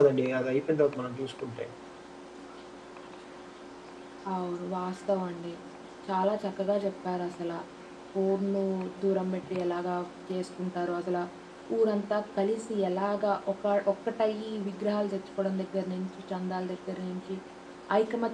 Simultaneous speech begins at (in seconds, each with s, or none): none